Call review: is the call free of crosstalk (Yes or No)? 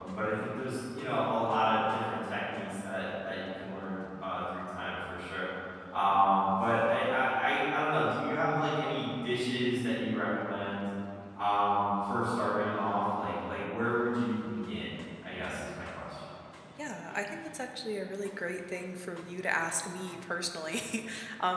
Yes